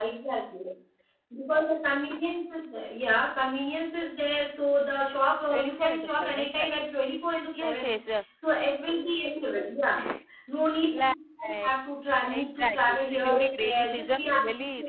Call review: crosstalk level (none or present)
present